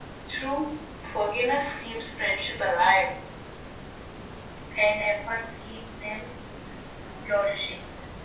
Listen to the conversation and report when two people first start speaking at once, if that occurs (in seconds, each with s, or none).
none